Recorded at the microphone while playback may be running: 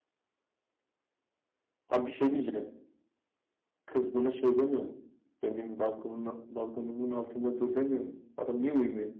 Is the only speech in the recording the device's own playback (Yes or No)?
Yes